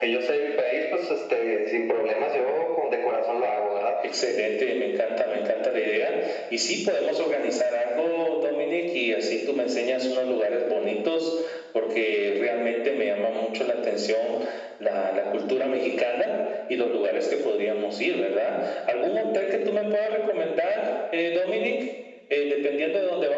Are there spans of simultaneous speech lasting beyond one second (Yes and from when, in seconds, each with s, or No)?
No